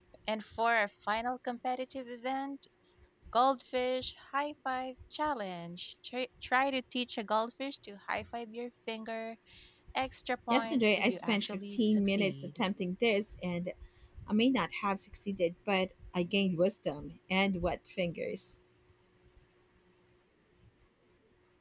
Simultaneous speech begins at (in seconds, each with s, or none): 10.5 s